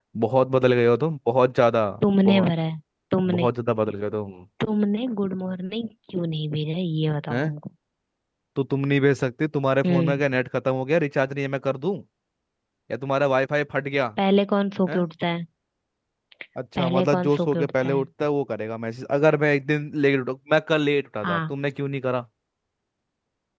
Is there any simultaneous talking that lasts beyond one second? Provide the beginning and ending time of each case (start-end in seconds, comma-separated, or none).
16.8-18.0